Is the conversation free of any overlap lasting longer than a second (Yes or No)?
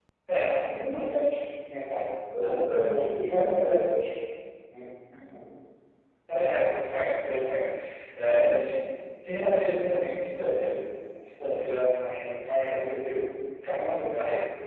No